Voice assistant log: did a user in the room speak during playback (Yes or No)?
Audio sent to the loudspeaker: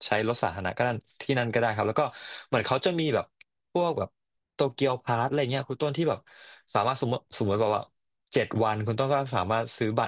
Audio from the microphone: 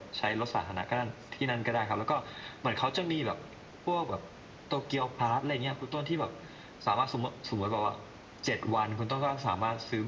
No